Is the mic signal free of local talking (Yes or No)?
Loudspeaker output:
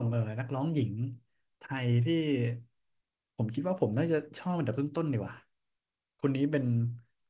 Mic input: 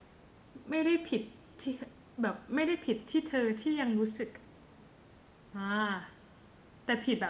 No